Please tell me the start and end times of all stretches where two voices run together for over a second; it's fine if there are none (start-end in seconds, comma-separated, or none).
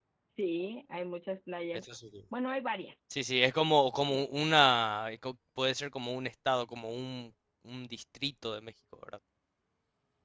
none